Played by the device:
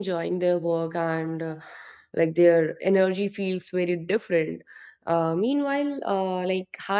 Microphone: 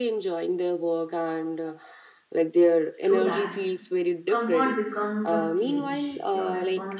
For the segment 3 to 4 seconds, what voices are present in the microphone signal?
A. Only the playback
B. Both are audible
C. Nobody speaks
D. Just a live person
B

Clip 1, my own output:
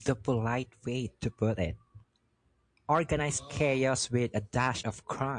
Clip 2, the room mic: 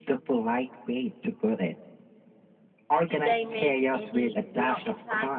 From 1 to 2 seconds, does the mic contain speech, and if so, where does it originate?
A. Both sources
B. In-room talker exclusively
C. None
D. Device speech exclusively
D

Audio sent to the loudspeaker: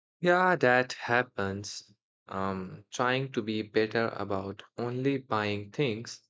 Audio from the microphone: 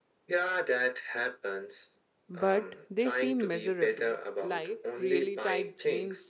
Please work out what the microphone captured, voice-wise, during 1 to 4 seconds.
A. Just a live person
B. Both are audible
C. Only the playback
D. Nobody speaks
B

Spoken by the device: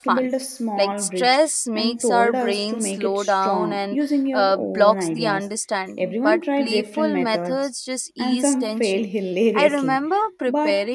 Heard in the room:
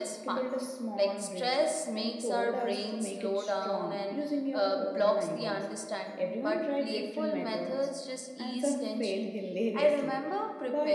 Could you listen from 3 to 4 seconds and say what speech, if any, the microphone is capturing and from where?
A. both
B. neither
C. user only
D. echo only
D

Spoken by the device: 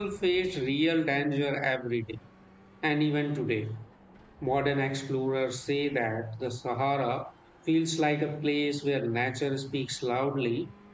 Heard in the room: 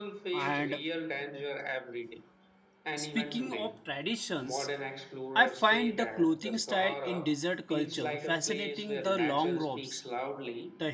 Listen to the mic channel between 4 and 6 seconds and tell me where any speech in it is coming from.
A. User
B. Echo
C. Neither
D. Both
D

